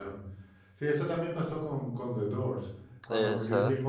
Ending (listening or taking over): listening